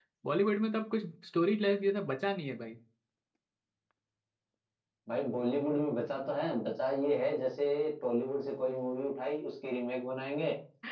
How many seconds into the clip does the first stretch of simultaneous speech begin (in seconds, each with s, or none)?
none